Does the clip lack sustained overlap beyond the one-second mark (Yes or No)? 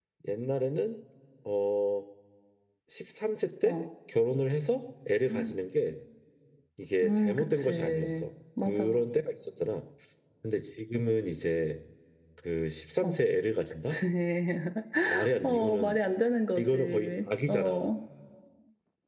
No